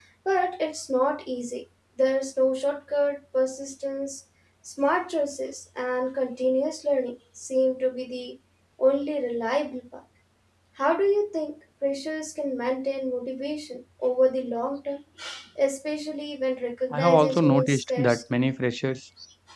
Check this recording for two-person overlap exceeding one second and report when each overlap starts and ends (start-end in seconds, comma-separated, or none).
16.9-18.2